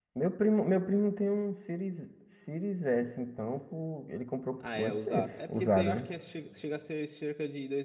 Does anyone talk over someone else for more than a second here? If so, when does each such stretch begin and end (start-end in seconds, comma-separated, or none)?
4.8-6.1